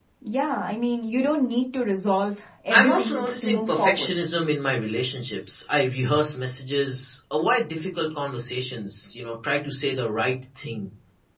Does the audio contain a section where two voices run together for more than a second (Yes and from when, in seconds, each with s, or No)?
Yes, from 2.7 s